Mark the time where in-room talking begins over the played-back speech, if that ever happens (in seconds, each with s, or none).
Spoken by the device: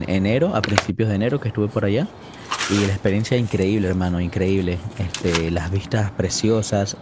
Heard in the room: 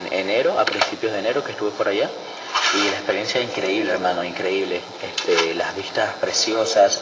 none